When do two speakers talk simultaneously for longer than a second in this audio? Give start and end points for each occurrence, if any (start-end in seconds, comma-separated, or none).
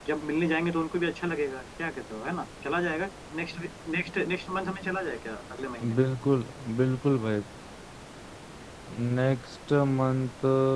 none